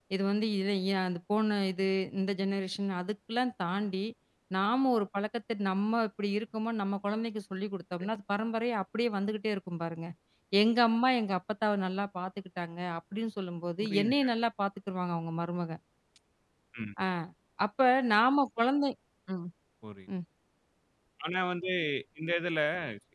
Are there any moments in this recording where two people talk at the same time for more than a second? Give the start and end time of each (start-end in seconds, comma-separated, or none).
none